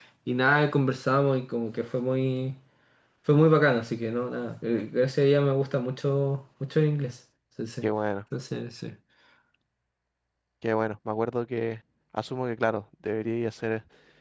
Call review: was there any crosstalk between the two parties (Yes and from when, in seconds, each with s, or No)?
No